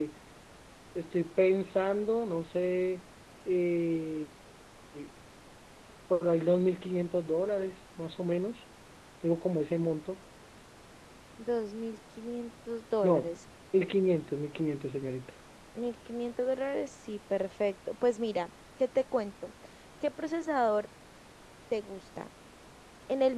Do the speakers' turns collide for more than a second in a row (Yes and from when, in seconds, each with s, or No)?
No